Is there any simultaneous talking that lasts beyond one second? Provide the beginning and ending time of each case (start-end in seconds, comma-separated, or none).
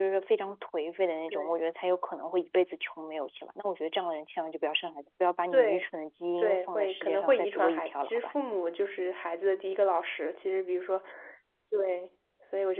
6.4-8.3